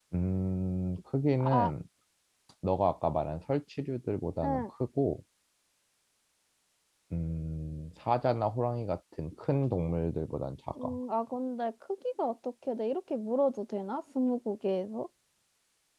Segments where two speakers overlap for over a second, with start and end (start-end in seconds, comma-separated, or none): none